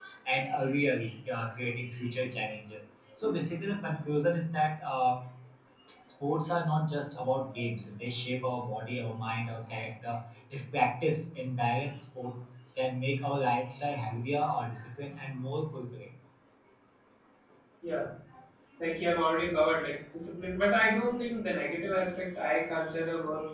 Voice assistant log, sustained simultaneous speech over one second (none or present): none